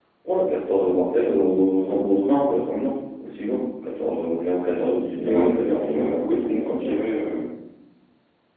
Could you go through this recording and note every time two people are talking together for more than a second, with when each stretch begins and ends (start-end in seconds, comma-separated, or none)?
5.3-7.0